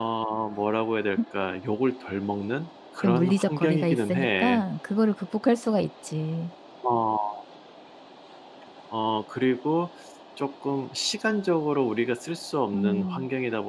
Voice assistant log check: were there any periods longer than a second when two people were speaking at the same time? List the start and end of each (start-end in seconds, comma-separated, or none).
3.0-4.6